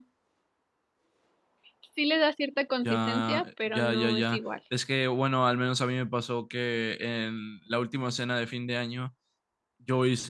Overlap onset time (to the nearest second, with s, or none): 3 s